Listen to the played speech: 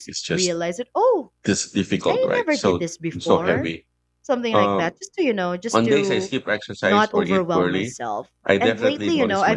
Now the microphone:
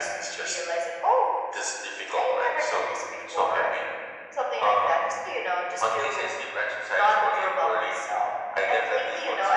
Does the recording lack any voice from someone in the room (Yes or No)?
Yes